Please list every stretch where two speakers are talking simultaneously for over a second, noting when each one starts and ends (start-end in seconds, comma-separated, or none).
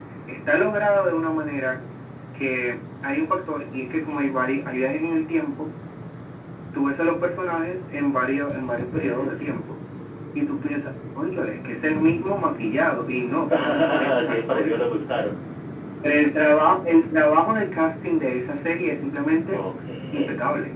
13.5-14.7